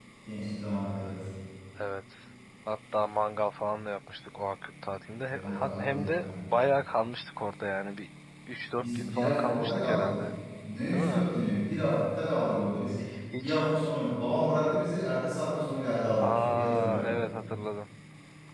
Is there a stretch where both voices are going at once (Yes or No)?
Yes